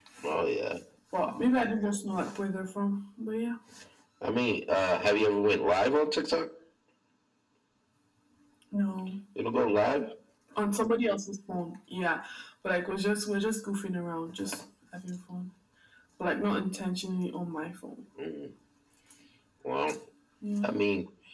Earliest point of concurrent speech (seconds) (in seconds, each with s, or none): none